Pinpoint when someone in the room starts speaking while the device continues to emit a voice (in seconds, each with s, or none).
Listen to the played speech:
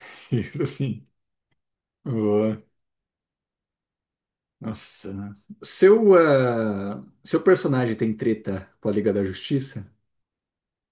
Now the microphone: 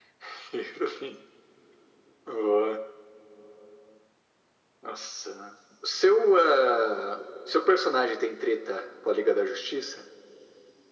none